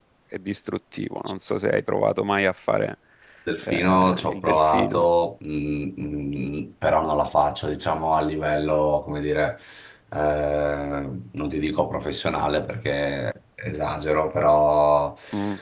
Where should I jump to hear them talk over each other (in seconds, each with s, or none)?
3.6 s